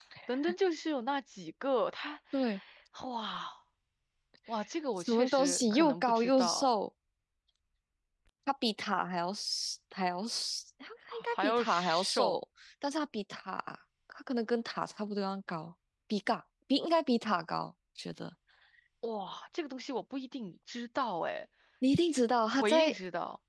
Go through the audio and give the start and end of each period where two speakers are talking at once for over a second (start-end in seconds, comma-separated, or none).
5.0-6.7, 11.1-12.3